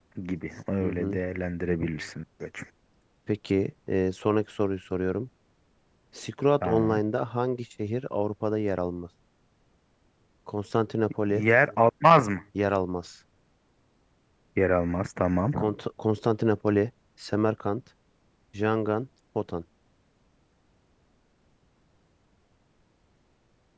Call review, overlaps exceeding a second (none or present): none